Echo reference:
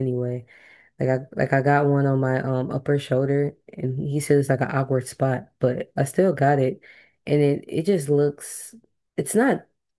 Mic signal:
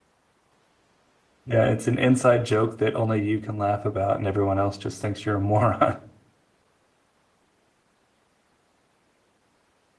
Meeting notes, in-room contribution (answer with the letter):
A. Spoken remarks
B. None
A